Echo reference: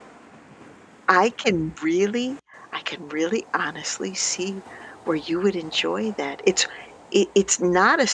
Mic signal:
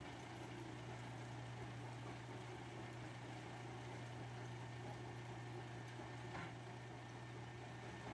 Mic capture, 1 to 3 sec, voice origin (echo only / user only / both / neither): neither